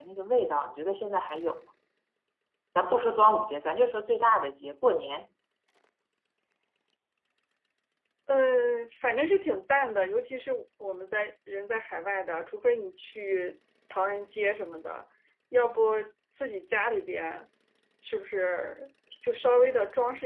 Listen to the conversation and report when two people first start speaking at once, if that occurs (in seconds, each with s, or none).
none